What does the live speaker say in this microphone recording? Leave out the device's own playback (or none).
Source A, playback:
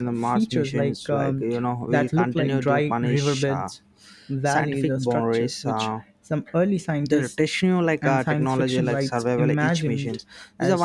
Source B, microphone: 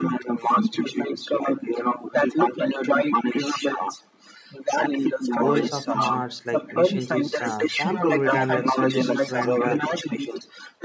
goals of mars like missions is uh, sample return like scientists went uh,